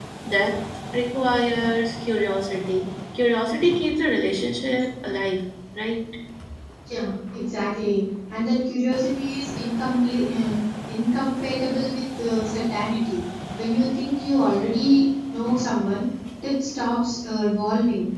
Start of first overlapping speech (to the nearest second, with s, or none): none